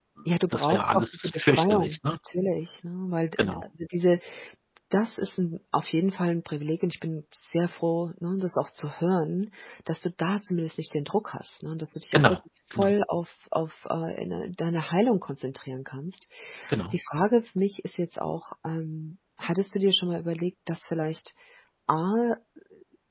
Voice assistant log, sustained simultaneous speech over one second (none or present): present